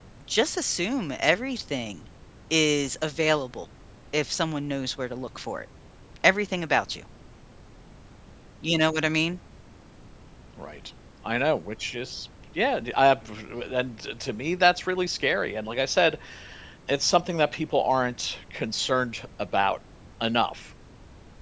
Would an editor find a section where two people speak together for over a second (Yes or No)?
No